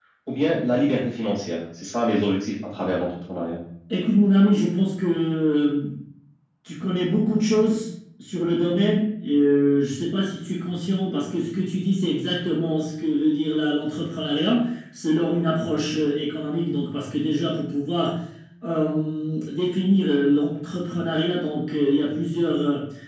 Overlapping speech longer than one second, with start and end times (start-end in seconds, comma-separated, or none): none